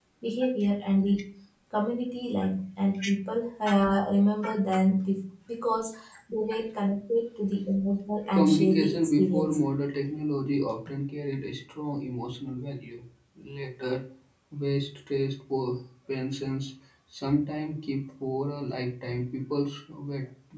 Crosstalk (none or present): present